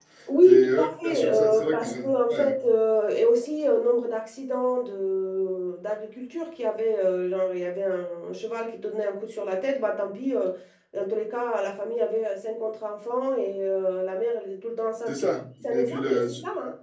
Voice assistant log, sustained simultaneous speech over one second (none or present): present